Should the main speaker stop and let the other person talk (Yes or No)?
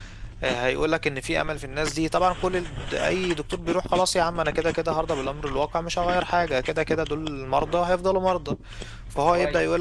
No